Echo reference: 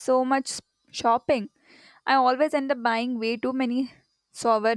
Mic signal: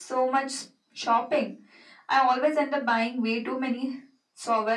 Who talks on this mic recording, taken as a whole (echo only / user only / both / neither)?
echo only